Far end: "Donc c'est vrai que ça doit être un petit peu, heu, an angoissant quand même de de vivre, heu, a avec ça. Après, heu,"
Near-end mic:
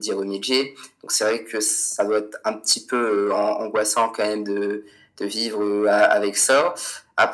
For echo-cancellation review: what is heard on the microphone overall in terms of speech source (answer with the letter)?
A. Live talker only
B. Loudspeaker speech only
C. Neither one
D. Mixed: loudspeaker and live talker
B